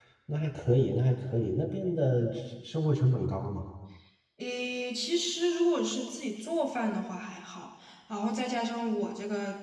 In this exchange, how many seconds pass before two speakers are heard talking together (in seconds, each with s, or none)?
none